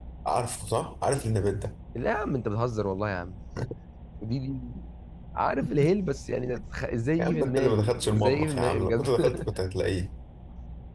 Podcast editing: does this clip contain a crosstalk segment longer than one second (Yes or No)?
Yes